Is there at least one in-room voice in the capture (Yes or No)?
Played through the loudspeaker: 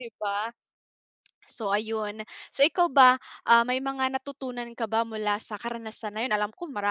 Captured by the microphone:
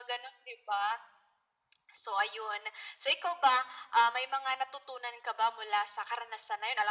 No